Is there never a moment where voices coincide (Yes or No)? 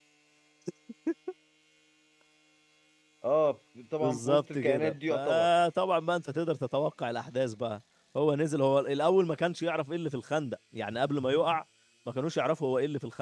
No